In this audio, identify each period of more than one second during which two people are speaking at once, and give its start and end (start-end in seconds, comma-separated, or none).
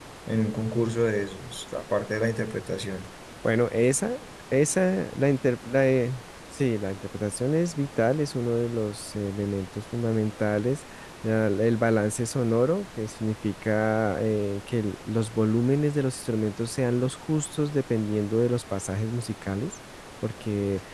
none